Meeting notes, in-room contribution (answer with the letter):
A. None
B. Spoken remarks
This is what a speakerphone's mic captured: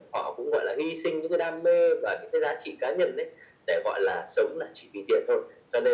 A